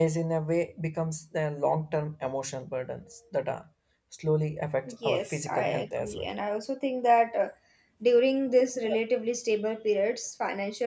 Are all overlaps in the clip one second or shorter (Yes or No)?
No